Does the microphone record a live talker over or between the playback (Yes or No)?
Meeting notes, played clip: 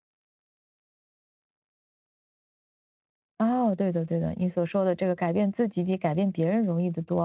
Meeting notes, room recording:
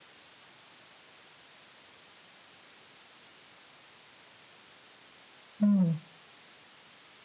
Yes